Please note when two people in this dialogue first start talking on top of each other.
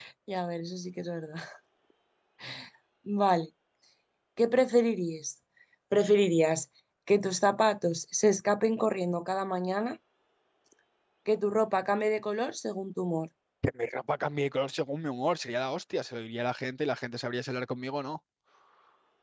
none

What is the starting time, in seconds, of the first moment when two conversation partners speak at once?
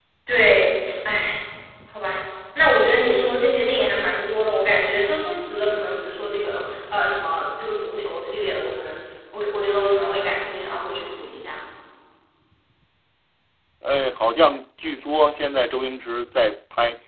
none

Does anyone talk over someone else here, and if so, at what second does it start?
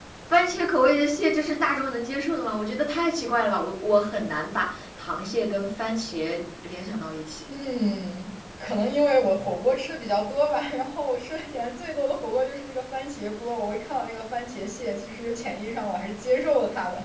none

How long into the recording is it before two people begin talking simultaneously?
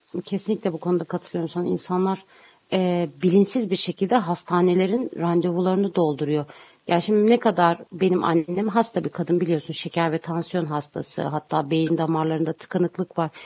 none

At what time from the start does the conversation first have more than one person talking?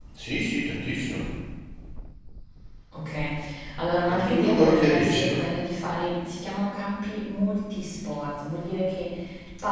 4.1 s

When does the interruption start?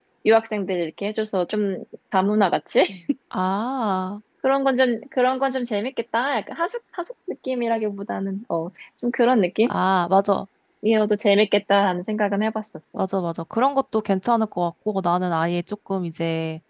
none

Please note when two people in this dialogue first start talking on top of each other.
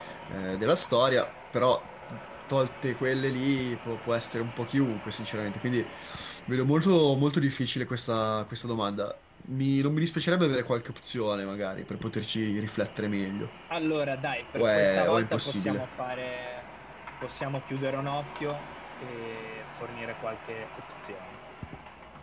14.5 s

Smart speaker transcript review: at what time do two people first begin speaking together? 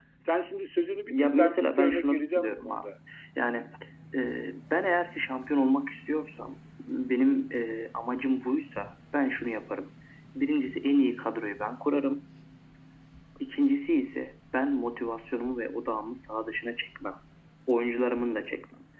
1.1 s

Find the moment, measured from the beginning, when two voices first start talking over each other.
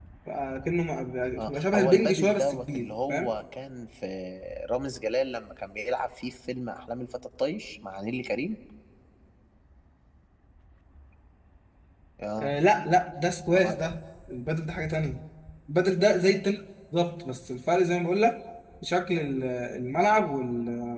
1.4 s

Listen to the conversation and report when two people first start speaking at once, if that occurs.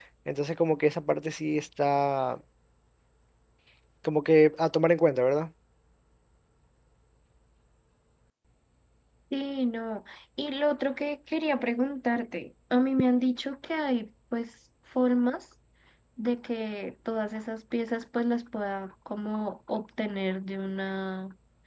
none

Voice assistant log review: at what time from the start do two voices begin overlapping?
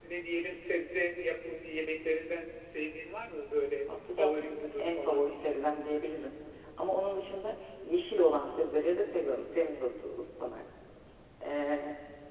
3.9 s

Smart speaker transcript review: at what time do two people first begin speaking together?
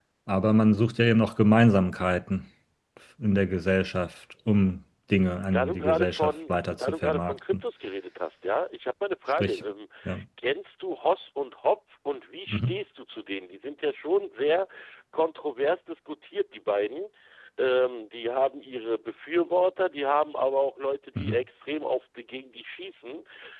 5.5 s

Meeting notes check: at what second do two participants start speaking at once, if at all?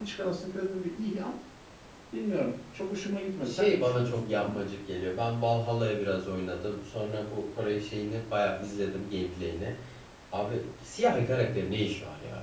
3.4 s

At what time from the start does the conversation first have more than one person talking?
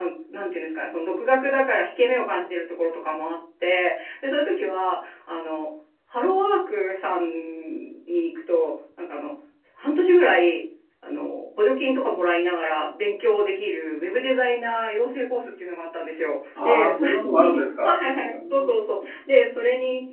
16.6 s

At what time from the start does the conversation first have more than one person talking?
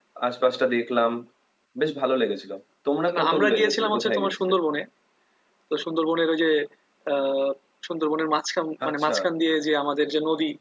3.2 s

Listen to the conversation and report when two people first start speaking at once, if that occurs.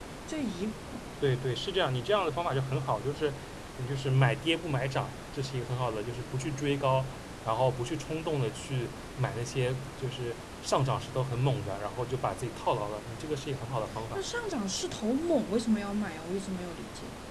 none

